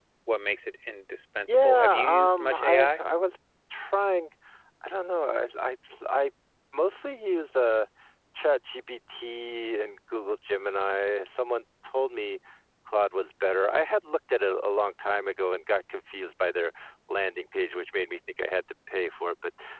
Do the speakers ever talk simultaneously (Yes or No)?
Yes